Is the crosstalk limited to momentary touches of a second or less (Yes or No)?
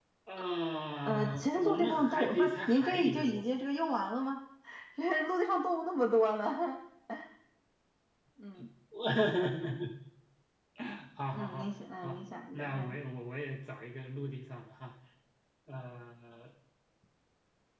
No